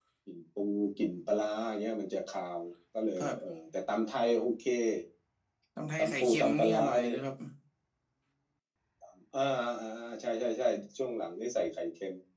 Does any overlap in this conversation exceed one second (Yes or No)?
Yes